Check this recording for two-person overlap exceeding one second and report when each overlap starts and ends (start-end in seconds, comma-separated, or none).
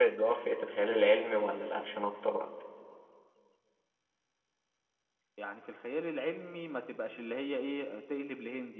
none